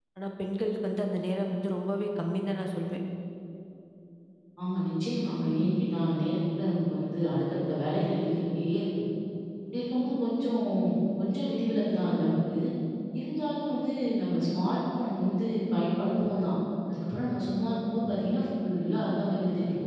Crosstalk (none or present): none